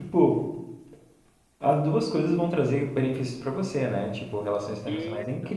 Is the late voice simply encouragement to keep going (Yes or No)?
Yes